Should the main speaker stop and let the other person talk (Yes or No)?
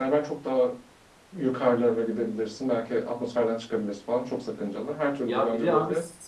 Yes